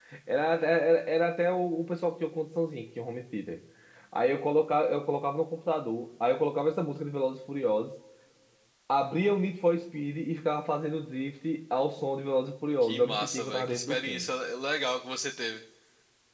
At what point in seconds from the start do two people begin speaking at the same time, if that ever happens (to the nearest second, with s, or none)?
13 s